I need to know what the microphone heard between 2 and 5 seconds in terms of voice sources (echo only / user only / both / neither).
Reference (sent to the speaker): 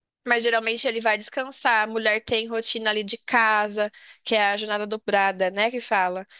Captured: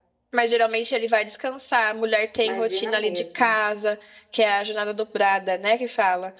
both